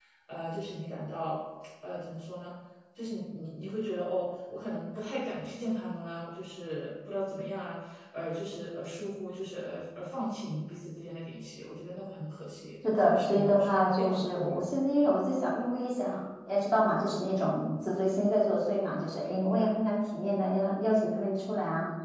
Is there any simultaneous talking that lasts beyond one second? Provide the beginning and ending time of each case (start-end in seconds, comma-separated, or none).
13.0-14.6